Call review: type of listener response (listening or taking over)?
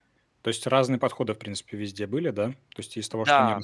listening